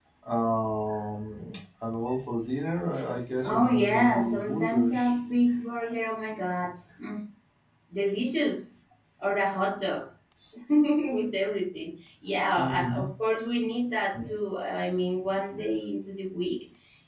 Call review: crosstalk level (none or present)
present